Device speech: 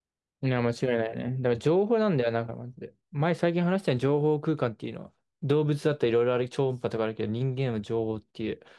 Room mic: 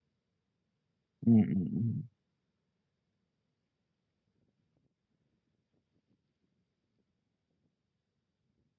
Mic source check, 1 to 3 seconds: user only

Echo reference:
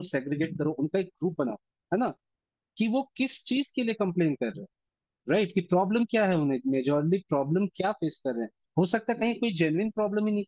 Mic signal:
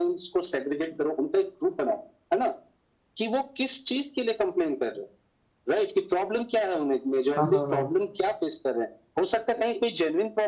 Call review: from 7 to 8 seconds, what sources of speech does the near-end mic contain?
both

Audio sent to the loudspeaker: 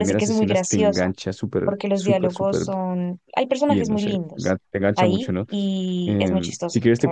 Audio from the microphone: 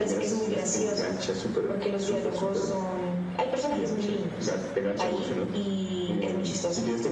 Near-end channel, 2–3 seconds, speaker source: echo only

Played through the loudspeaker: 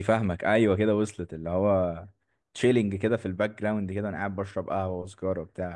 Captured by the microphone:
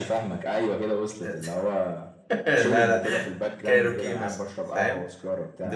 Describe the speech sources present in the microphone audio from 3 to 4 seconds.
both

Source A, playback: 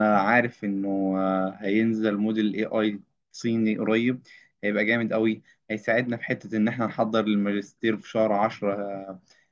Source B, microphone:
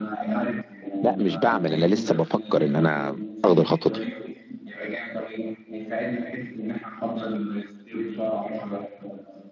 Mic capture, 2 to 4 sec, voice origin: both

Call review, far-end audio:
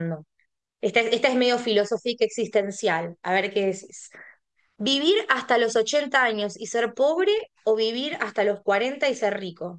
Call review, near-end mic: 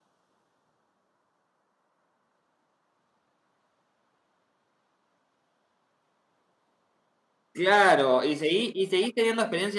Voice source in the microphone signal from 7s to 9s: user only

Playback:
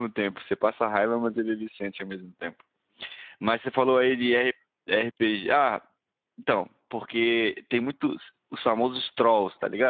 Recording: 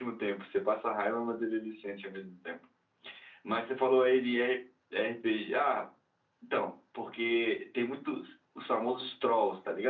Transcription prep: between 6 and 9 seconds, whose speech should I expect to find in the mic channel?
echo only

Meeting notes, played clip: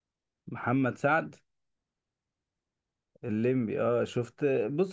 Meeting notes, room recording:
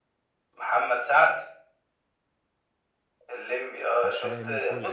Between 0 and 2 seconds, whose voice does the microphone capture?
echo only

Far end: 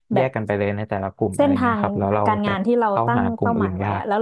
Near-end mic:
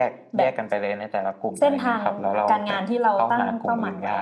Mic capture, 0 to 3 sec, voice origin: echo only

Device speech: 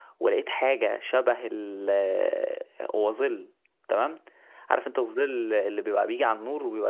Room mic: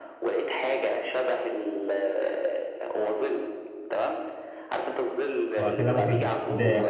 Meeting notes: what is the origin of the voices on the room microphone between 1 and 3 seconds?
echo only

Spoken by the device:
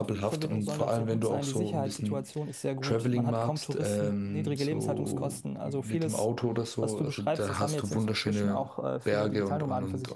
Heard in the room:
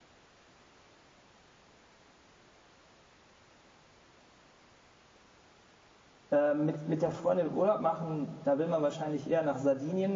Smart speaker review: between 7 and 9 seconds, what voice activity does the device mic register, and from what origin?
user only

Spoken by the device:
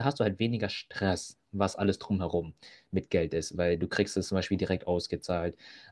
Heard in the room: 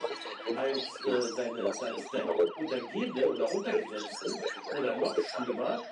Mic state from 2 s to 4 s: both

